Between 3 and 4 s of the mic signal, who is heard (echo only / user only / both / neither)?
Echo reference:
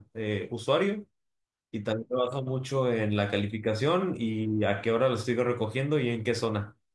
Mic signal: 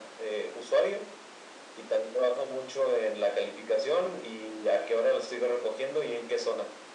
echo only